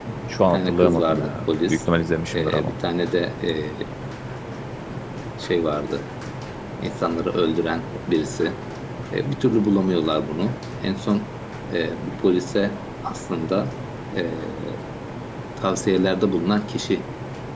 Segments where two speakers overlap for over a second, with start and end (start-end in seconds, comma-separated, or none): 0.5-1.8